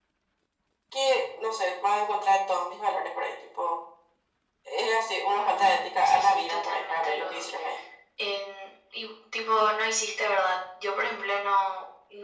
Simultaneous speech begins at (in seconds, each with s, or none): 5.3 s